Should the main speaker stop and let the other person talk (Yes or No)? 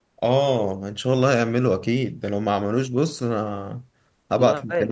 Yes